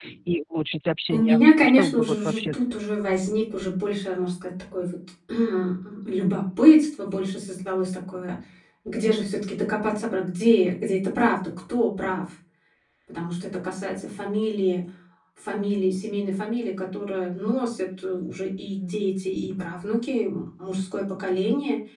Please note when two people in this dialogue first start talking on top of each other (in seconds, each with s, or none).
1.1 s